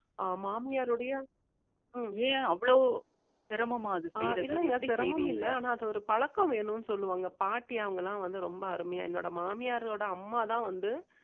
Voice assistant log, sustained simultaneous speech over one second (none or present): present